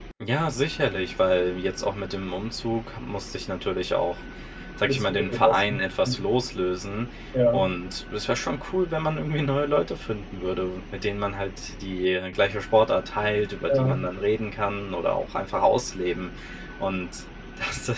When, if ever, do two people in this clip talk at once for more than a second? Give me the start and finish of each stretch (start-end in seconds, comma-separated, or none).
4.8-6.2